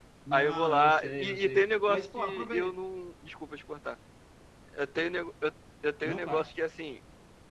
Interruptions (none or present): present